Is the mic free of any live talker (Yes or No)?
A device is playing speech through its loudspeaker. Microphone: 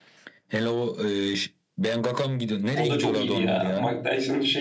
No